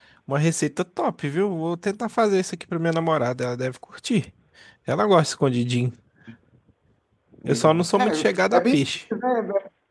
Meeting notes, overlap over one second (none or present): present